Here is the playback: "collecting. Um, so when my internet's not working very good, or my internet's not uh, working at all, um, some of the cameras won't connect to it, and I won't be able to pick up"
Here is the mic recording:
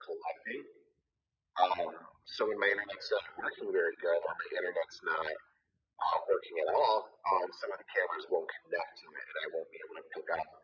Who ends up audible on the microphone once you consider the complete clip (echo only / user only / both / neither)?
echo only